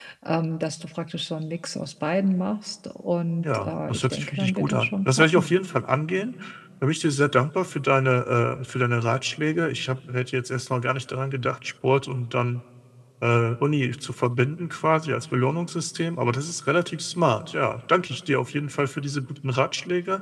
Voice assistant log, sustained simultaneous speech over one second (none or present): present